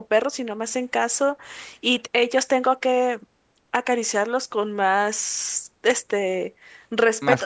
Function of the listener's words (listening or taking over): listening